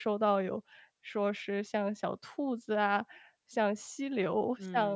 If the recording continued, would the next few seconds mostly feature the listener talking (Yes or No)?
Yes